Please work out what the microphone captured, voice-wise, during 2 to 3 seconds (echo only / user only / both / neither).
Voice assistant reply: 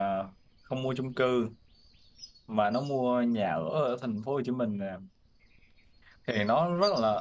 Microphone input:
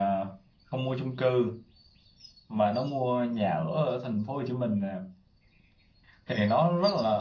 echo only